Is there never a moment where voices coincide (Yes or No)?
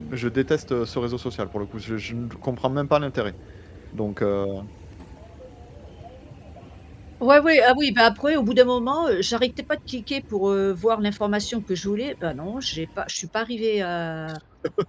Yes